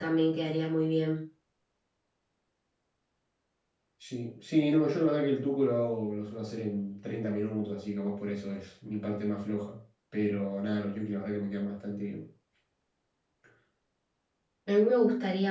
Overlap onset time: none

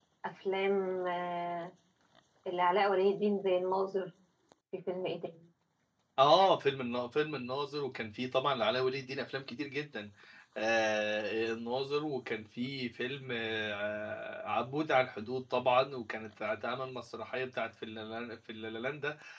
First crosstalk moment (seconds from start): none

